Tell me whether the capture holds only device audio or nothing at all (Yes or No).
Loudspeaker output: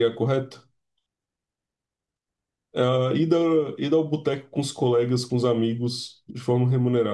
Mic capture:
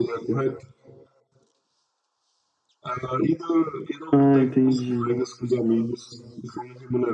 No